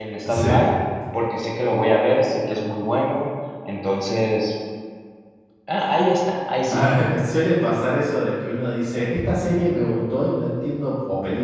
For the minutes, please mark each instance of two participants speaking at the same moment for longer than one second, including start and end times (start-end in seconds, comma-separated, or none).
none